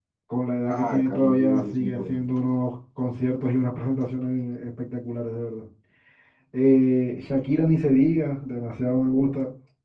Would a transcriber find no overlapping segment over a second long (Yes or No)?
No